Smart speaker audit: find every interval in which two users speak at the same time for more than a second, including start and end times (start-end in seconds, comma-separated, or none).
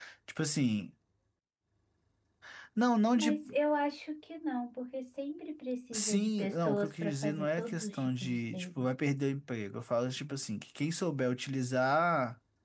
5.9-8.9